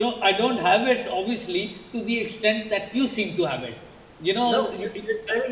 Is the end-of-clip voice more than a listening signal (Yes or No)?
Yes